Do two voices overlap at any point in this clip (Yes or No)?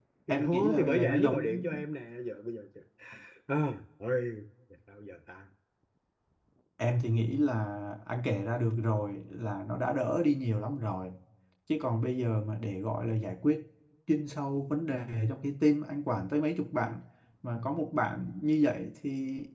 Yes